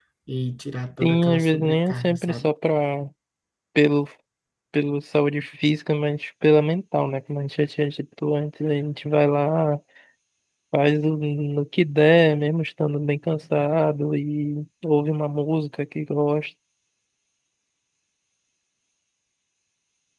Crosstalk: present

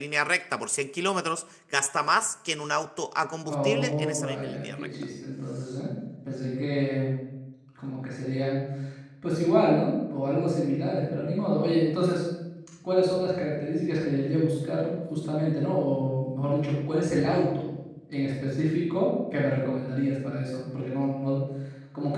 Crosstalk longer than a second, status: present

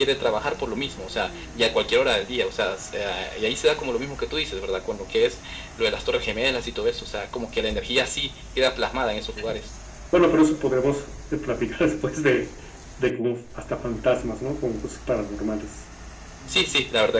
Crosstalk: none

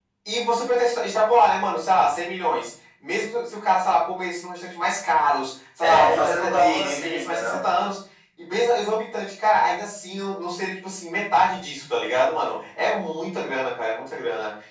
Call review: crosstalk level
present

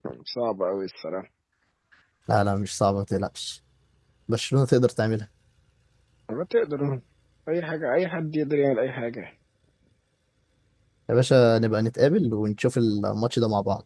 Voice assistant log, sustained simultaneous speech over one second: none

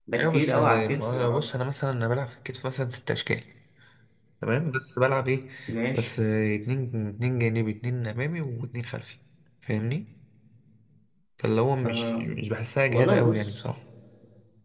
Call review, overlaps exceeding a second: present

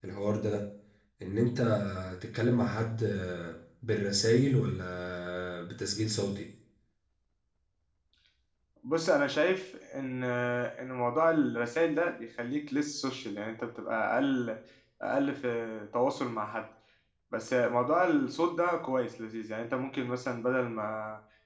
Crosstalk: none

